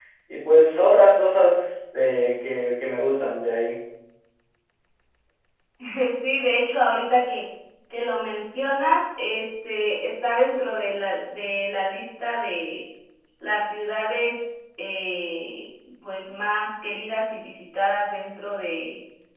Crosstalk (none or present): none